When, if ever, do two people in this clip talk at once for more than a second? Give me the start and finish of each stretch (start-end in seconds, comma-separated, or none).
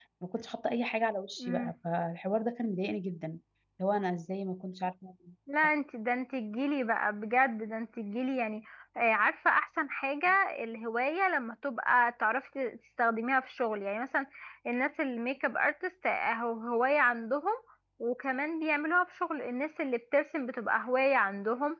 none